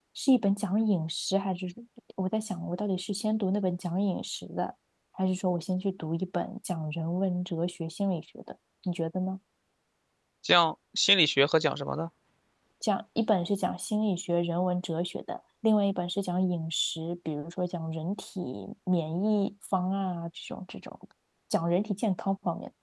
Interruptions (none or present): none